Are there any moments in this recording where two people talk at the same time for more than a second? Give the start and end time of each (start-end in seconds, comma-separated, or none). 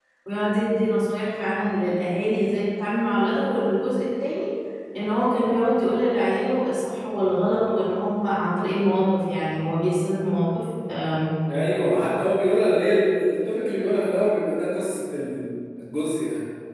none